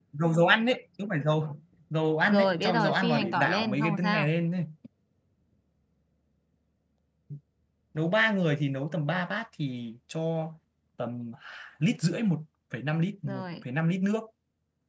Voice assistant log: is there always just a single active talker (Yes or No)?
No